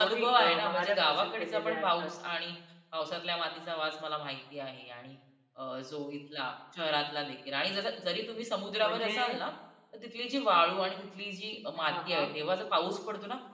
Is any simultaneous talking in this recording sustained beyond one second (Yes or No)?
Yes